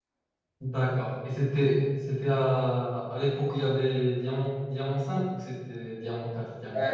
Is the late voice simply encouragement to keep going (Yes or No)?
No